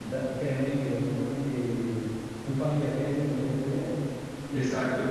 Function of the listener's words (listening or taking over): listening